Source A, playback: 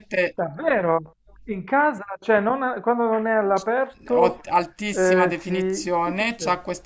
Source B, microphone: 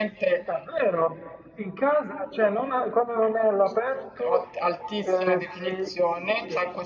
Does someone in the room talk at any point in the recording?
No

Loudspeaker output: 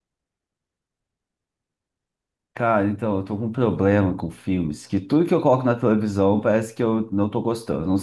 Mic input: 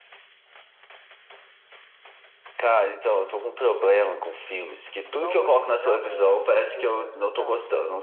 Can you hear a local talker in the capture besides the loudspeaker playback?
Yes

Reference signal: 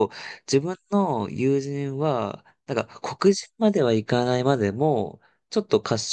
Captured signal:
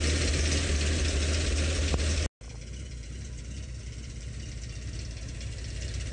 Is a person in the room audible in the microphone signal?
No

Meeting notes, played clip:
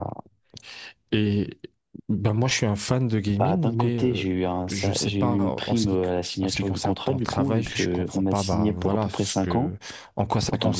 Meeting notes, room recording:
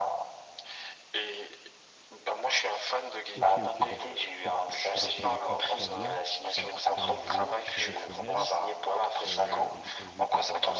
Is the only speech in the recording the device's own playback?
No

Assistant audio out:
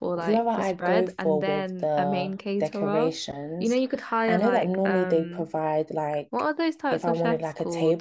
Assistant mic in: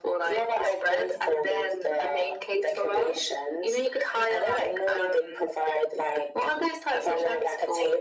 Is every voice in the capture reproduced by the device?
Yes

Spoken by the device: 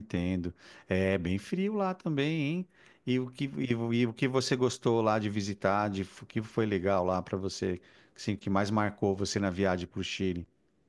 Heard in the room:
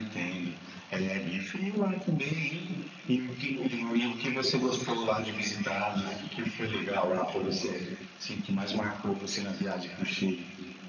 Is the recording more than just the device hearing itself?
No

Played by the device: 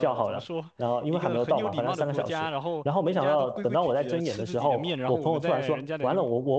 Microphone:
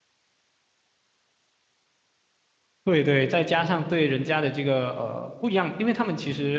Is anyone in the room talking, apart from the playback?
Yes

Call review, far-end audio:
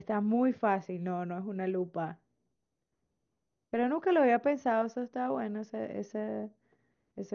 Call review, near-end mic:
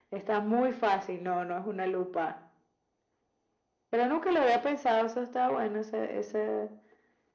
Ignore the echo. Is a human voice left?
No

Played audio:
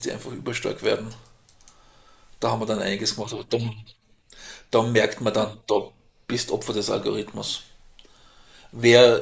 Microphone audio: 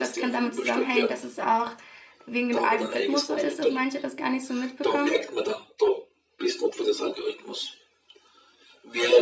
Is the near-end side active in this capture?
Yes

